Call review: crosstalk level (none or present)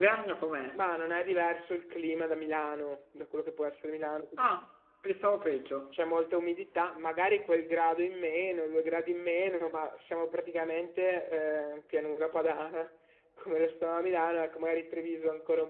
none